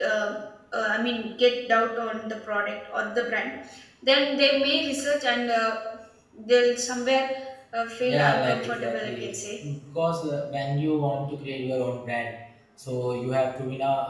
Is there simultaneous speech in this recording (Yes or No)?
Yes